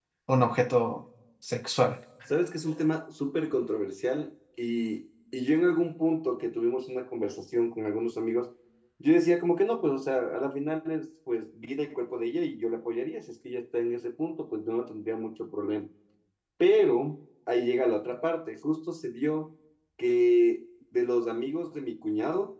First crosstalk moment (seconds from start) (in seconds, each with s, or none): none